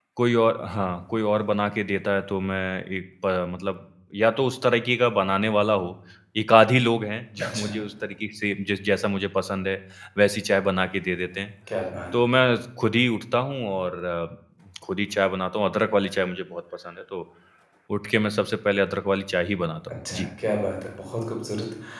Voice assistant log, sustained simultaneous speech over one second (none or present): none